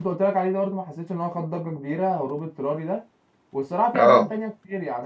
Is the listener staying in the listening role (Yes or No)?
Yes